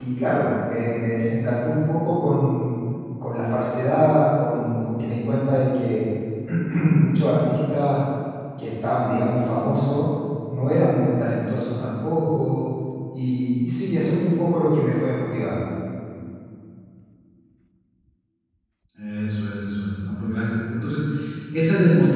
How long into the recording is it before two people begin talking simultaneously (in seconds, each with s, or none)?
none